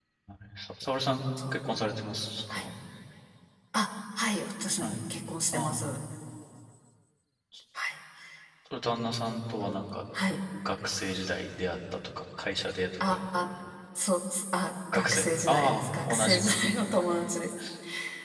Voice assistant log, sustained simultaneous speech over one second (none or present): present